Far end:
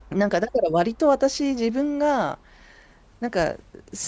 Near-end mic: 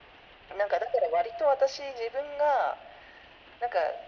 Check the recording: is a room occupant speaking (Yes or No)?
No